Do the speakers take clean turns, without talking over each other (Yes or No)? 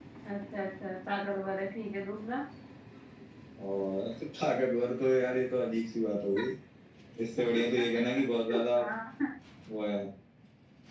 Yes